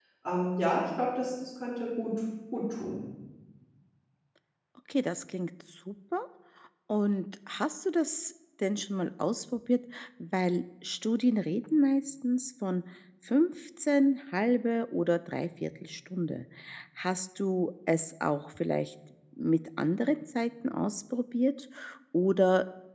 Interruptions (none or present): none